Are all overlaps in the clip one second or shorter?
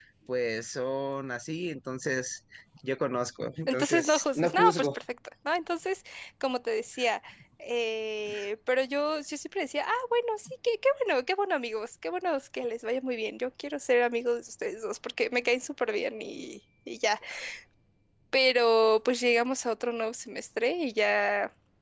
No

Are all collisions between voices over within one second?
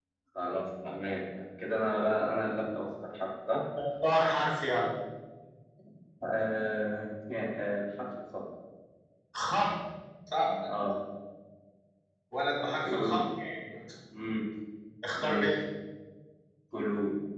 Yes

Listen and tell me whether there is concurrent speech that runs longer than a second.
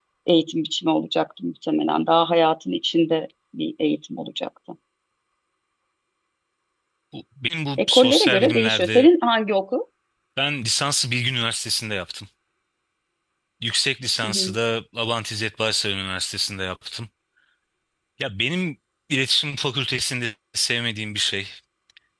Yes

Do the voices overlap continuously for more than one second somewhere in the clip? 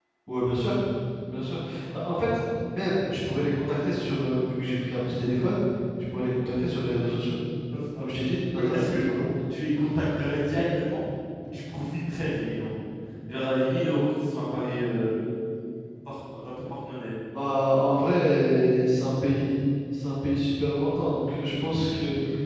No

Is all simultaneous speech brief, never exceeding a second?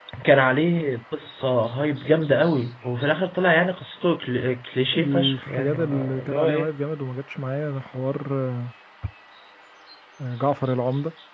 No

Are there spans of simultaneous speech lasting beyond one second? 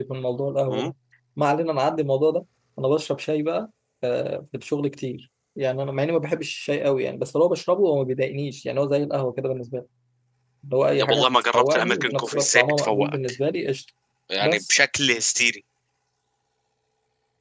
Yes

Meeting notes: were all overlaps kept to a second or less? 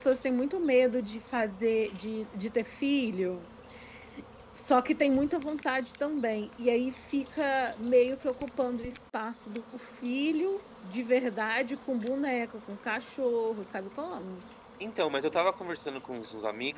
Yes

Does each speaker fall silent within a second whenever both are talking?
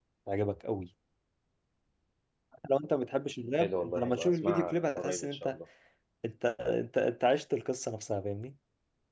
No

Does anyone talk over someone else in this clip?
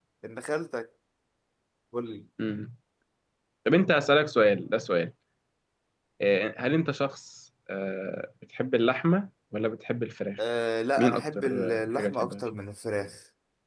Yes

